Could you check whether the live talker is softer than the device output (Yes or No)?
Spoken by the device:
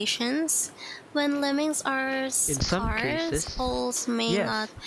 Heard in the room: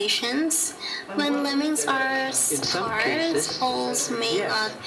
Yes